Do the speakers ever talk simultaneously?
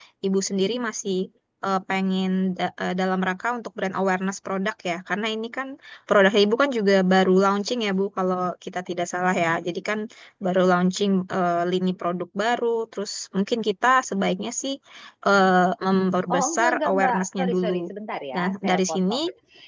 Yes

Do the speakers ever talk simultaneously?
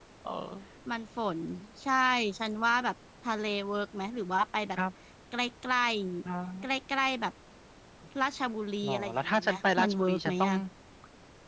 Yes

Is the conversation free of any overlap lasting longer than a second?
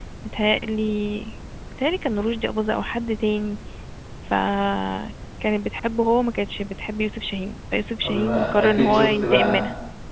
No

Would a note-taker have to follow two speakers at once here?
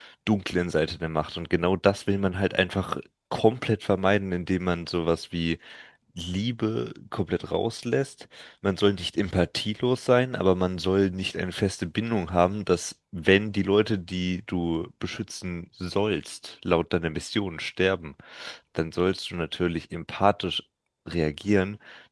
No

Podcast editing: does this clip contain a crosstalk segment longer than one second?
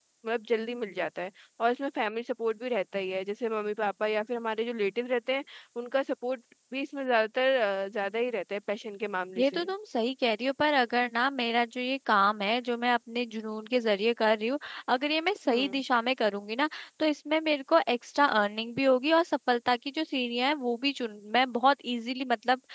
No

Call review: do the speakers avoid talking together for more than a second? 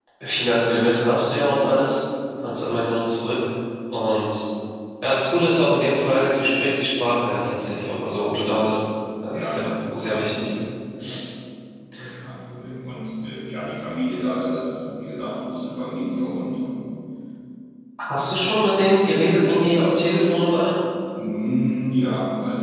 No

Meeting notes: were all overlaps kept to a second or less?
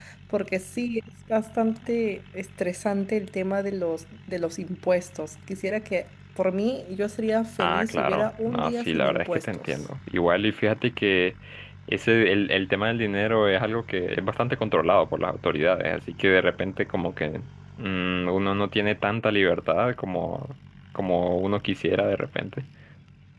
No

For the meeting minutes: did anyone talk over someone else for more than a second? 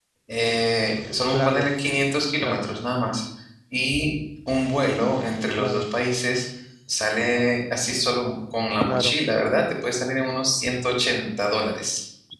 No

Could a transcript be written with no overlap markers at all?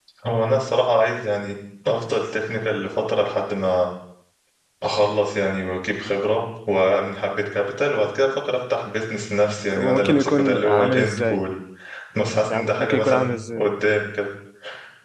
No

